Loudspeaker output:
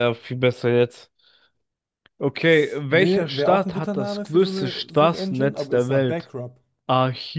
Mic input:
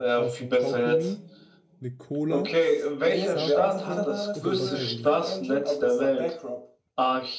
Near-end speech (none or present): present